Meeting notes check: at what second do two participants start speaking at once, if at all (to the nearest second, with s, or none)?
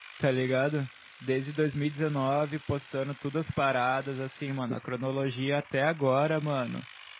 none